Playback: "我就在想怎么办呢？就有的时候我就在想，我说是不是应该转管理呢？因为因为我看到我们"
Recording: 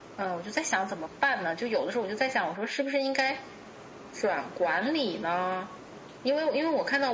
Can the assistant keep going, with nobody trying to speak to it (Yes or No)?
Yes